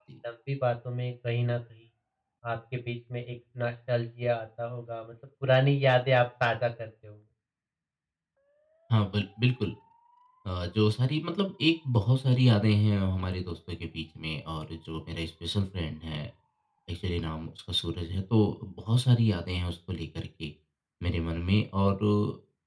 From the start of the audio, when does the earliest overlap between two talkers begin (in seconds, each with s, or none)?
none